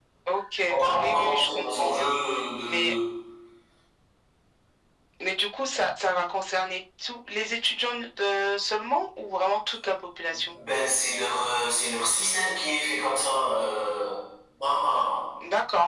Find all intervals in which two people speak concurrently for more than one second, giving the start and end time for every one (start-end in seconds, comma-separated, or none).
0.5-2.1